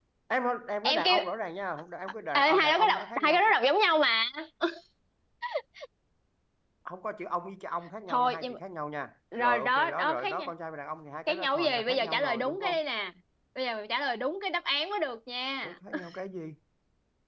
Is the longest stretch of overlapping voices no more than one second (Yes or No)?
No